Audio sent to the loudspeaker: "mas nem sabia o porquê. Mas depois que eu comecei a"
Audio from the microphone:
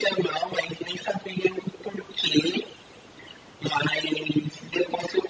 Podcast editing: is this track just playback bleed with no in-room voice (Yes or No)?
Yes